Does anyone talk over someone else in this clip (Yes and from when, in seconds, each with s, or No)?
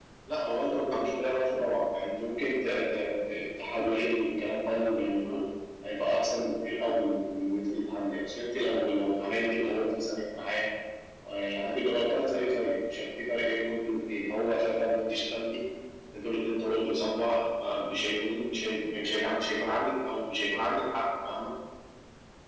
No